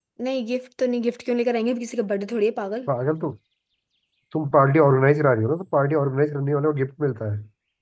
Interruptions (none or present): none